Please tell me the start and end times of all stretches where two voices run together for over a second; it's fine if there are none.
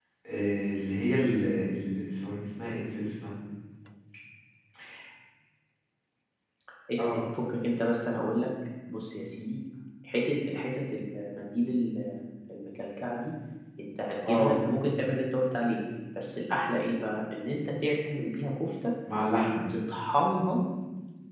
none

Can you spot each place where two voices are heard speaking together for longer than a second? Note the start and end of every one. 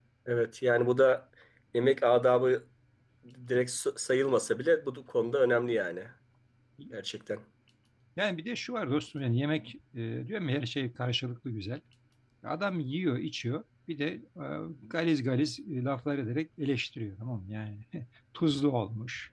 none

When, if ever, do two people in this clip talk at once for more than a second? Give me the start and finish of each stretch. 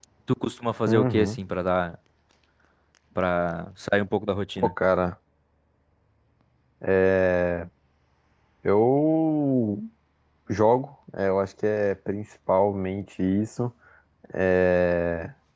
none

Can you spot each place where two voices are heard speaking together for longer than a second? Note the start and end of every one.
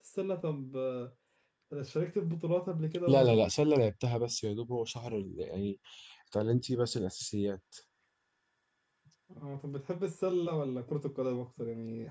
none

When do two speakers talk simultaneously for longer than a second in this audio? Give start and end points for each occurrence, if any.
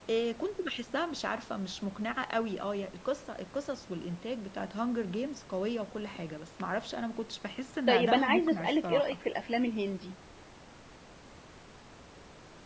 7.9-9.2

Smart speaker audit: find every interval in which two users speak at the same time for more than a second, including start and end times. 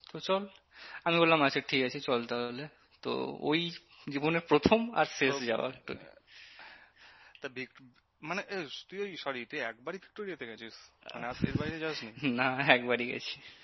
none

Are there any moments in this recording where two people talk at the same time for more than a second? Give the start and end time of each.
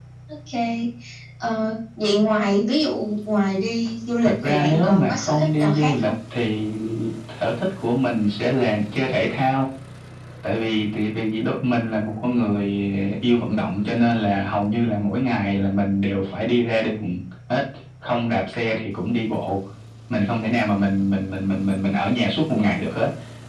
4.2-6.1

